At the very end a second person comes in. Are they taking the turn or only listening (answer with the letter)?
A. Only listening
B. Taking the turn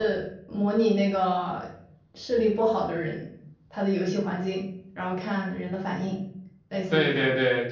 B